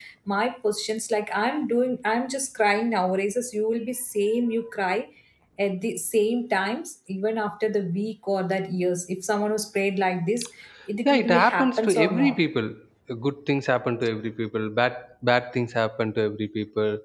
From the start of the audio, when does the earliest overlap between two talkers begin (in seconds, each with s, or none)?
11.1 s